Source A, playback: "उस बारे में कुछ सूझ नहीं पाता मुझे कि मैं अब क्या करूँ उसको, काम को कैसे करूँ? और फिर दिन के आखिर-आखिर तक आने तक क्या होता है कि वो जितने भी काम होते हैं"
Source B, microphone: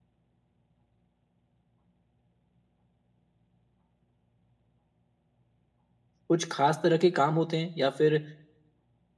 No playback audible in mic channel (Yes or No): Yes